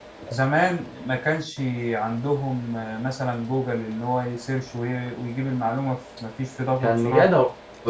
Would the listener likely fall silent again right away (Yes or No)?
No